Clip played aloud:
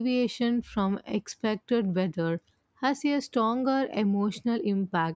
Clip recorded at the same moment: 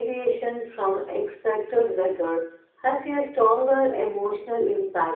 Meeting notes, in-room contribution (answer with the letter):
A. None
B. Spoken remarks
A